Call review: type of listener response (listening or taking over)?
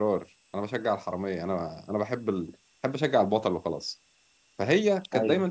listening